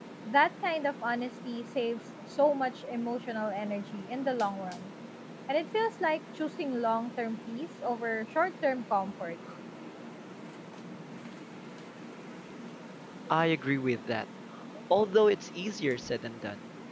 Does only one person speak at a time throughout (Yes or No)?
Yes